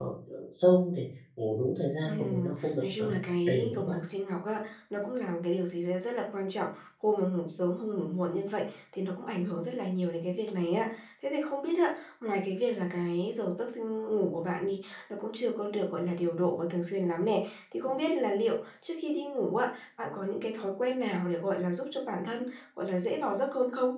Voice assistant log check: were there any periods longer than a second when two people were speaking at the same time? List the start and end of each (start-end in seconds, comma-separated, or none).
2.0-4.0